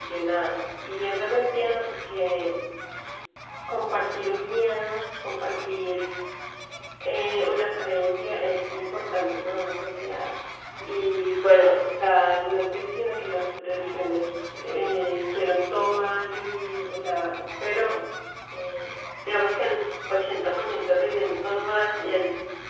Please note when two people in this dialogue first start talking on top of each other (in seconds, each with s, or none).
none